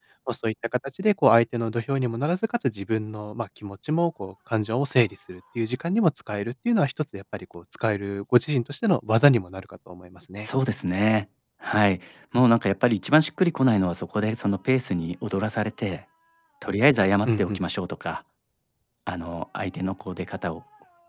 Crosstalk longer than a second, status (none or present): none